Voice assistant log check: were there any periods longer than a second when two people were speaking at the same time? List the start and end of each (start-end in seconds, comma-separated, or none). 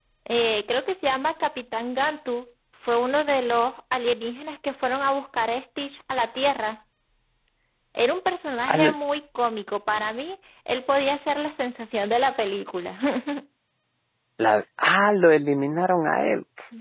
none